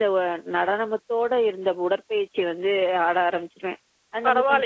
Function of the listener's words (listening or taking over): taking over